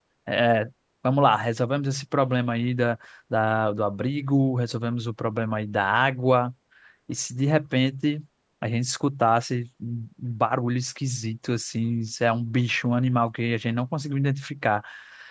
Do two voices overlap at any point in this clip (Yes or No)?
No